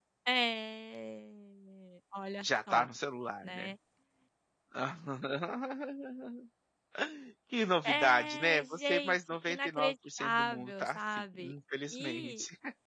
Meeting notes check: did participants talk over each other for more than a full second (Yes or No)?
Yes